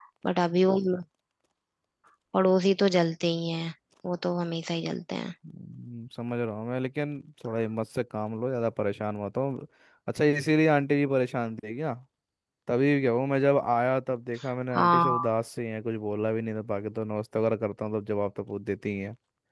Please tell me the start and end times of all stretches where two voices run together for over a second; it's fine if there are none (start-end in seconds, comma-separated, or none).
none